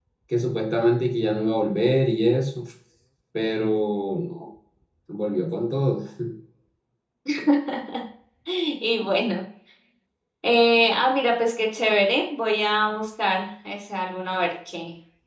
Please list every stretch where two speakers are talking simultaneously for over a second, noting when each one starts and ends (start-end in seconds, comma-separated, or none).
none